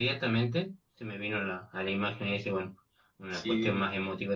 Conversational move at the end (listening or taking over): listening